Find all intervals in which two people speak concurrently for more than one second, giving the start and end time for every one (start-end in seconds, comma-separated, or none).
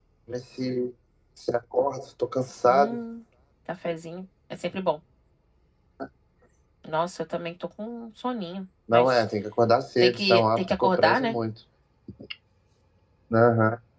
10.0-11.4